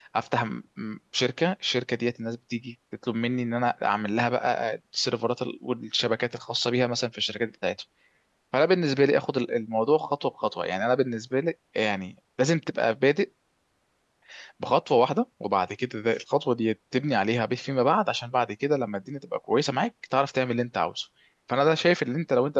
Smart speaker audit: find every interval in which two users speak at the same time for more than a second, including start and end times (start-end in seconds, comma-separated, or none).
none